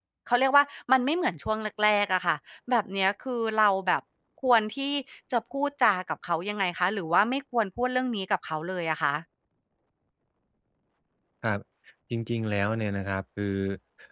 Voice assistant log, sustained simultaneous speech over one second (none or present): none